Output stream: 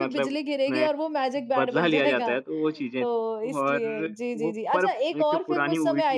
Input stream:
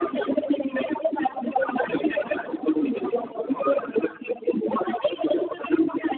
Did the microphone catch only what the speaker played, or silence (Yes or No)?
Yes